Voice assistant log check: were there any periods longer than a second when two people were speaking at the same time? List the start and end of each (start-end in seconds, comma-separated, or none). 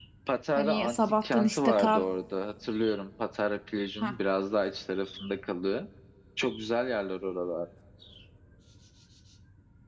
0.6-2.0